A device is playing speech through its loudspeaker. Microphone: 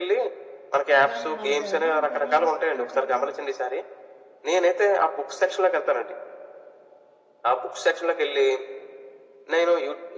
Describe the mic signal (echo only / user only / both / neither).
both